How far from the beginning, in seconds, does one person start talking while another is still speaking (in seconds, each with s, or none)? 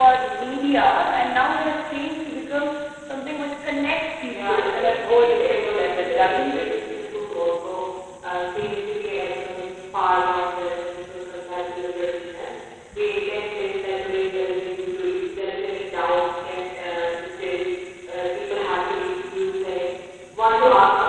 4.3 s